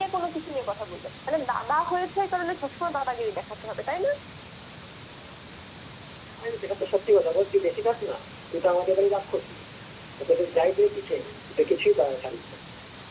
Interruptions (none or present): none